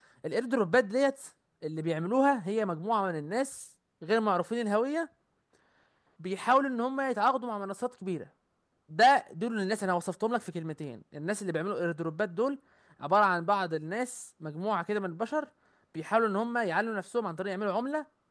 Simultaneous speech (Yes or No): No